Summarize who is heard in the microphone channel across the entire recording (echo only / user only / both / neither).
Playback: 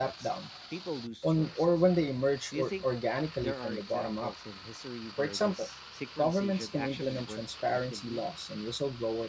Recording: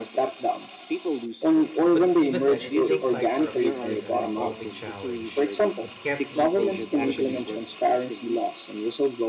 both